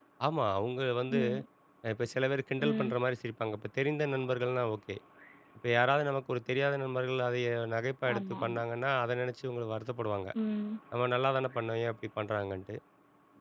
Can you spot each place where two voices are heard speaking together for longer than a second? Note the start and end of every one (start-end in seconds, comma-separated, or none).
none